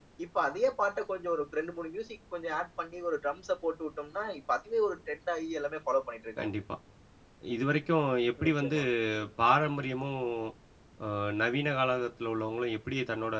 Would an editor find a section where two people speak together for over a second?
No

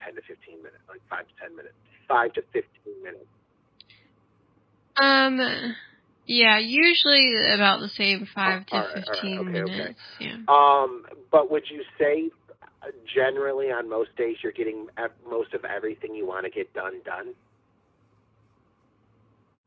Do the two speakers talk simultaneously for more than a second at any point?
Yes, from 8.4 s

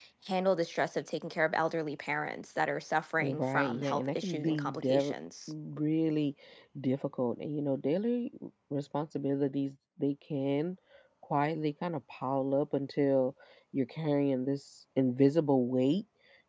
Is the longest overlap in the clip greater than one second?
Yes, from 3.2 s

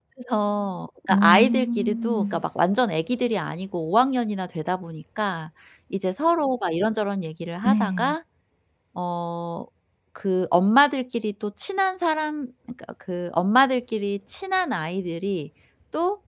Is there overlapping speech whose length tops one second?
Yes, from 1.1 s

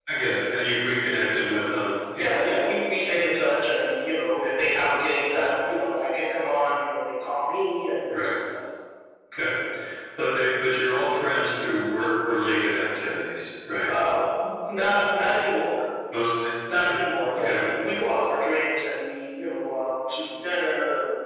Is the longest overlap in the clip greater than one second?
No

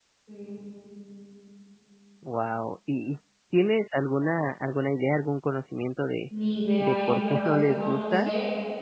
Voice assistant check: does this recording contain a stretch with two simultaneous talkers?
Yes, from 6.8 s

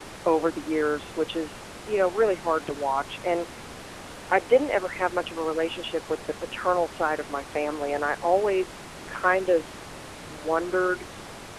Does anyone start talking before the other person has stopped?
No

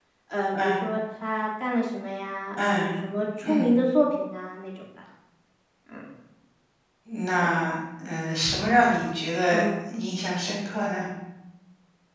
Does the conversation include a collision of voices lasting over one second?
No

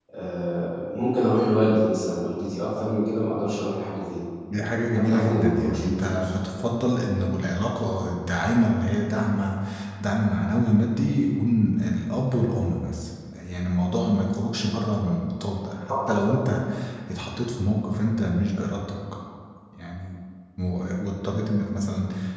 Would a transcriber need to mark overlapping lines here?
Yes, from 4.9 s

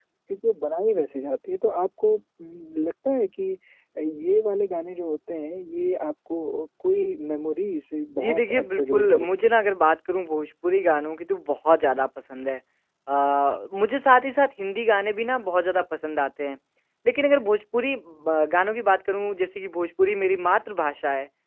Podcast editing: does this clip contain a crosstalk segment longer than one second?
Yes, from 8.2 s

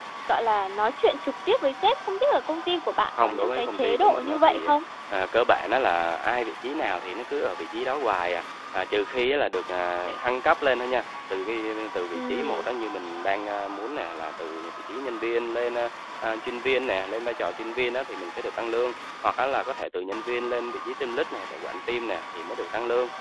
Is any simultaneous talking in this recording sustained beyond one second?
Yes, from 3.2 s

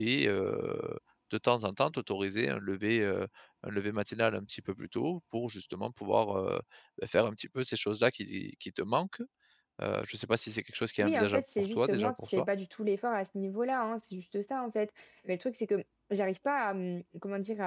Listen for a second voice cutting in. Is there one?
Yes, from 11.0 s

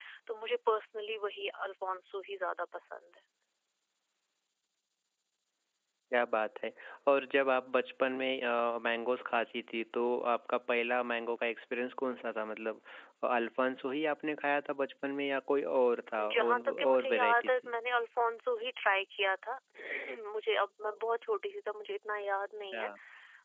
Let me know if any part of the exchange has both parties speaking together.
Yes, from 16.2 s

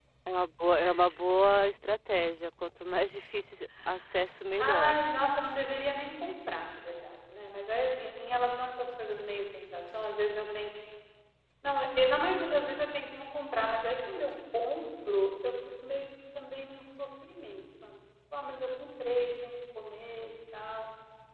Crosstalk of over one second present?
No

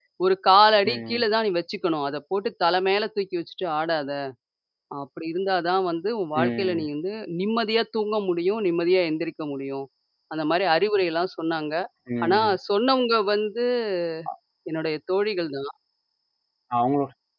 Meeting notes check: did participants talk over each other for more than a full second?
No

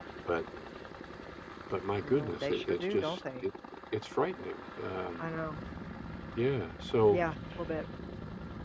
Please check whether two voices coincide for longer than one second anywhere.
Yes, from 2.0 s

